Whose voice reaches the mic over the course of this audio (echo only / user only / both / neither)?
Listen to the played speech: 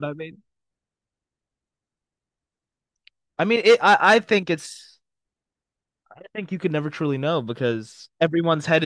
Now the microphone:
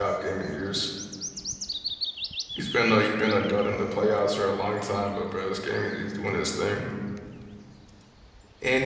user only